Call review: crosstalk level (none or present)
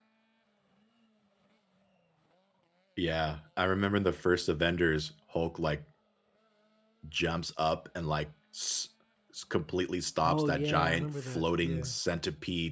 present